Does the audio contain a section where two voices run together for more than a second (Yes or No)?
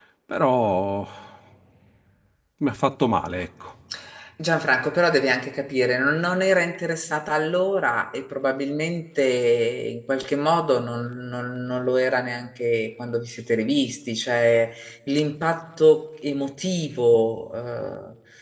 No